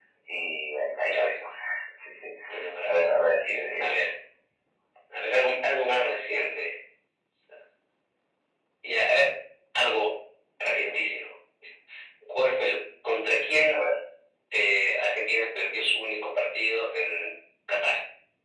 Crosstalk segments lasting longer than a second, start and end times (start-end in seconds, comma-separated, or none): none